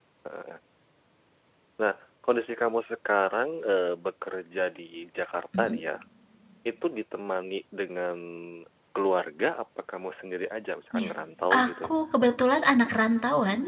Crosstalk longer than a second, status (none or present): none